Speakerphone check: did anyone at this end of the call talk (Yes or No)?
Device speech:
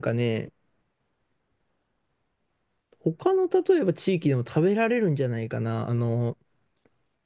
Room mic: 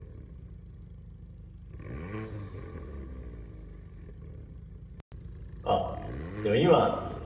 Yes